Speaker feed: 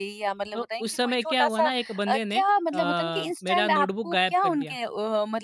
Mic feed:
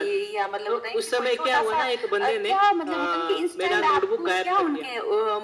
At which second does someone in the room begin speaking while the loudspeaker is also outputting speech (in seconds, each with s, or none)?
none